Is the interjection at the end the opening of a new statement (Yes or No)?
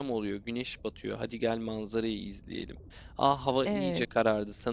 No